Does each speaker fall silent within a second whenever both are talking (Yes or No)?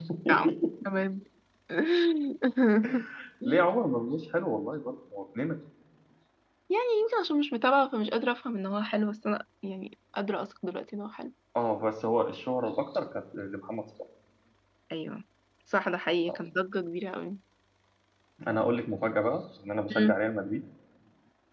Yes